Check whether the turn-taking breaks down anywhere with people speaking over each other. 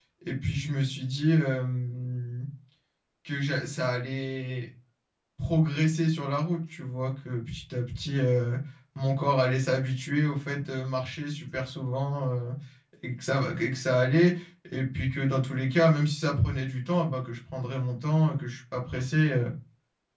No

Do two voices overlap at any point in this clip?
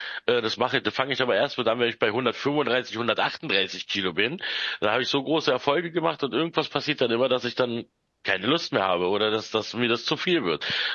No

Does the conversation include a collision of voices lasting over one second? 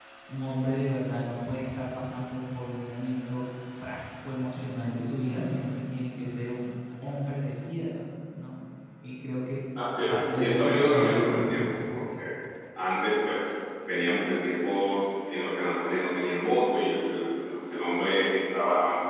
Yes, from 10.1 s

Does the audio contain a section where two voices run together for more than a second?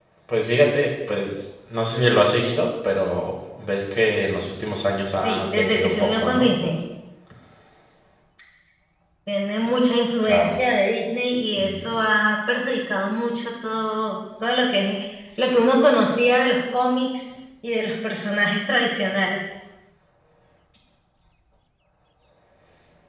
Yes, from 5.2 s

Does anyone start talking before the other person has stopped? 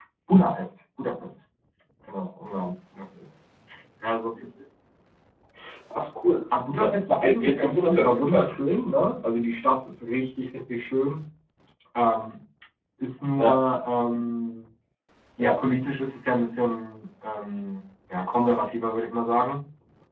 Yes, from 6.8 s

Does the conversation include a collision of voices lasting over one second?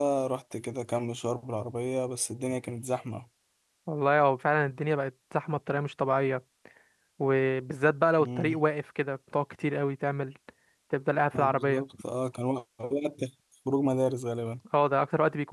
No

